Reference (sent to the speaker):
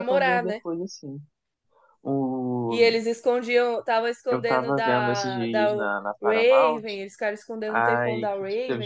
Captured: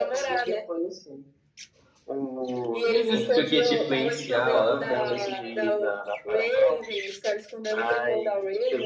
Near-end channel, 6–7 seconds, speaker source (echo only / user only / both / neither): echo only